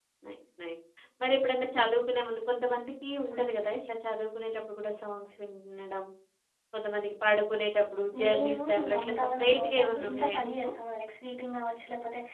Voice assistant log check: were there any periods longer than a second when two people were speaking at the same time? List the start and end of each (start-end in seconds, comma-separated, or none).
8.2-10.7